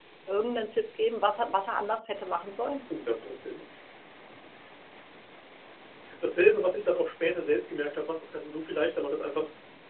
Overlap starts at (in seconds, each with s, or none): none